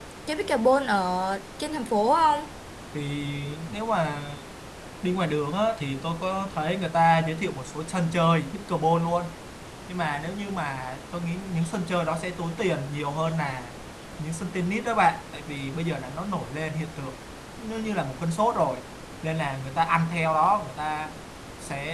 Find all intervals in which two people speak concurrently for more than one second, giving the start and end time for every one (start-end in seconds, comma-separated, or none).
none